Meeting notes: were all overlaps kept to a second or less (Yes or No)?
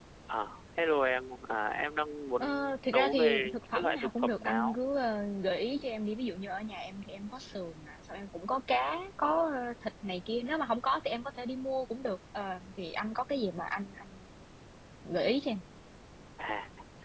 No